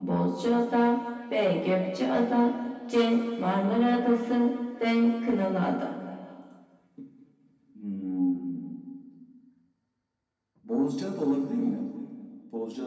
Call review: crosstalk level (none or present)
none